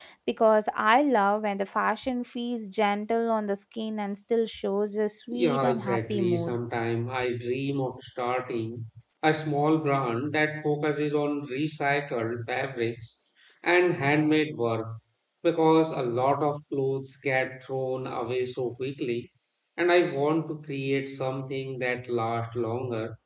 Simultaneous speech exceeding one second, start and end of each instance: 5.3-6.6

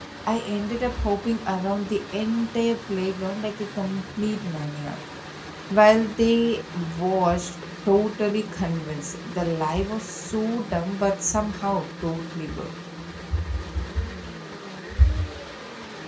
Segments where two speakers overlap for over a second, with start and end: none

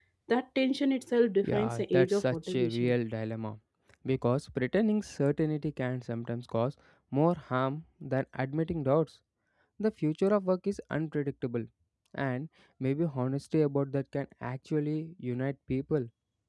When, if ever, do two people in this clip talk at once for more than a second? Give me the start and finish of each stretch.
1.4-3.0

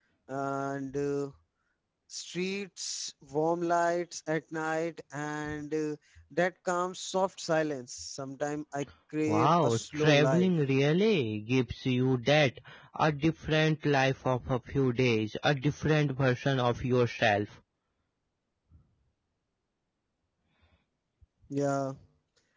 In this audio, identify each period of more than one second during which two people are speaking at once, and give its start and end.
9.3-10.5

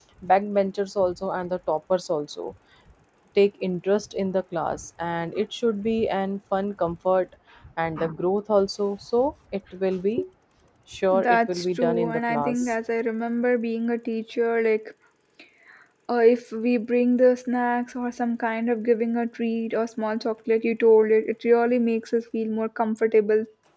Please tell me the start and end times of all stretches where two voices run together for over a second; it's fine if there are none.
11.1-12.7

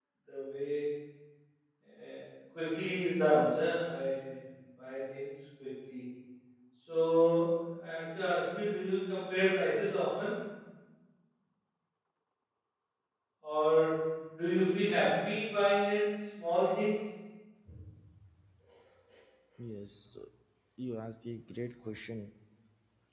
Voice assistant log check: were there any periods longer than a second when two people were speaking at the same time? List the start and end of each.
none

